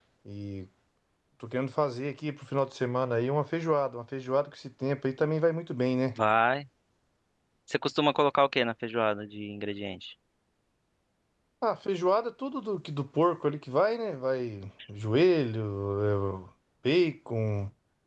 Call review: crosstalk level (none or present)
none